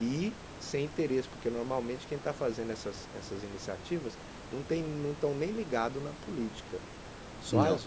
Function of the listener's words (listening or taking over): listening